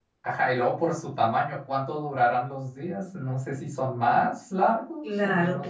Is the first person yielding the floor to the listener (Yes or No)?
No